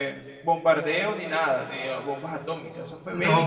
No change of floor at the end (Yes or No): No